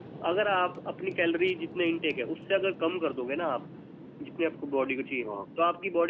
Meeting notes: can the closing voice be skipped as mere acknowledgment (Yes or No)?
Yes